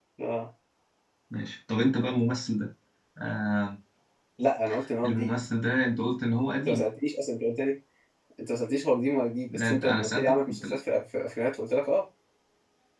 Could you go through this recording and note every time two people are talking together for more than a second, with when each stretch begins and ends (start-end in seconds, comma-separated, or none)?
9.5-10.8